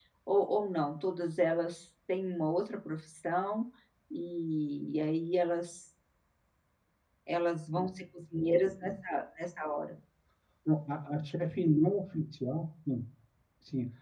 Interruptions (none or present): none